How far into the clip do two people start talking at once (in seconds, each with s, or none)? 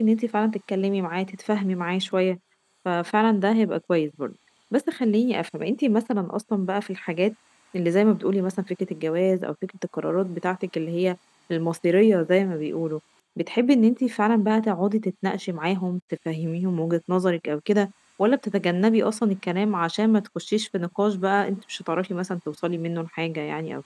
none